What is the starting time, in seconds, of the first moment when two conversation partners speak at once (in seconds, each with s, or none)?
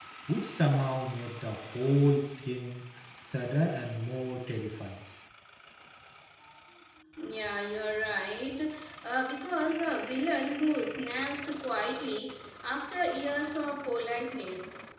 none